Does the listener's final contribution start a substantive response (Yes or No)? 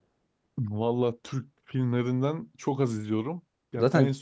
No